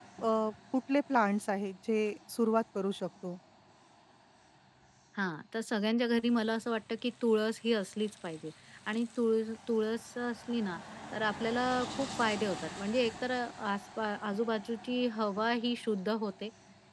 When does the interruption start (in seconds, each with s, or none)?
none